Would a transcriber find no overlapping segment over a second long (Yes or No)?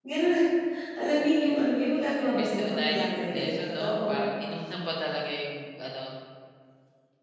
No